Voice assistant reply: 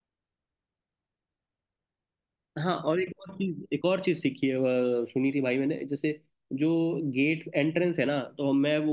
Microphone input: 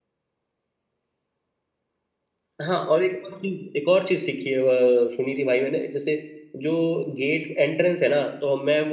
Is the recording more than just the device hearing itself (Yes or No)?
No